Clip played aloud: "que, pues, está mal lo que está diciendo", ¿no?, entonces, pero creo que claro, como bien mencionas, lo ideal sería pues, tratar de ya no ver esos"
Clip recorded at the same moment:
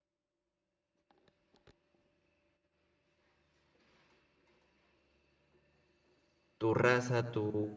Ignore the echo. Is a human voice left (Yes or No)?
Yes